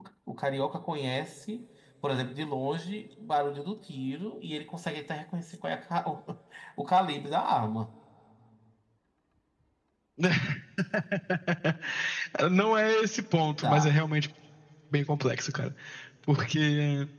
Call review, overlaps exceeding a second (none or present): none